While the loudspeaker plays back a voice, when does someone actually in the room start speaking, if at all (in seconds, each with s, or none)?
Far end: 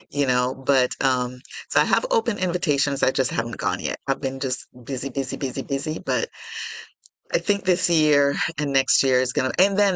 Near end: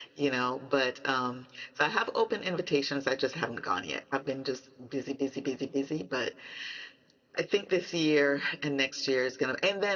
none